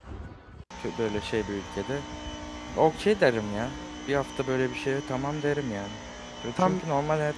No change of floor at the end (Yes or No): Yes